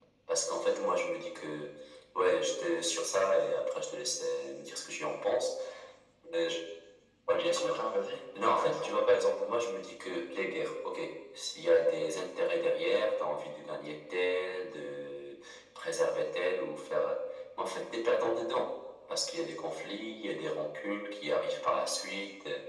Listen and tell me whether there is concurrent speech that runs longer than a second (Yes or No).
No